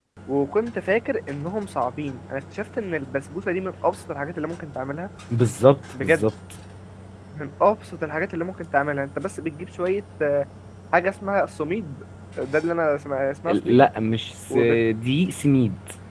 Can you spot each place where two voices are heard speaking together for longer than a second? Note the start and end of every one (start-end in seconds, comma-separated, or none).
none